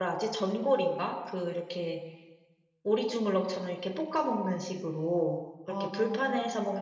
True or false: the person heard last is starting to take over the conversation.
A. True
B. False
B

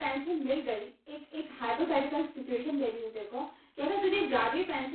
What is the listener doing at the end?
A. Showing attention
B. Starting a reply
A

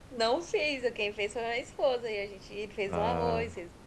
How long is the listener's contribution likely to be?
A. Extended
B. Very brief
B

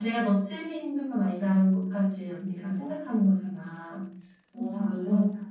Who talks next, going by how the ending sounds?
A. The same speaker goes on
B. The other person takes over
B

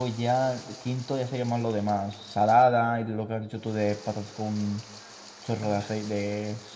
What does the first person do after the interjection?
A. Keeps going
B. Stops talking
A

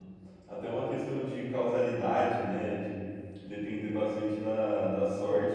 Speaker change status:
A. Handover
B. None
B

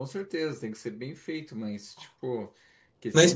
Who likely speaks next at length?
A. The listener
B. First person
A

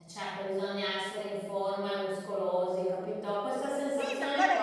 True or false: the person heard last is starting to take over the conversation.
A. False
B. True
B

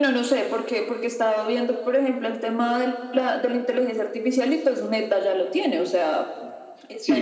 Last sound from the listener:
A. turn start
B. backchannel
A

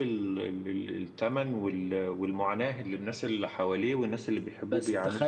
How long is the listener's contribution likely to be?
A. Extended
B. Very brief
A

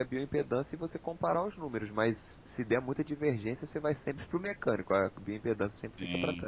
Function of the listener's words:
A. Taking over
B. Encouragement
A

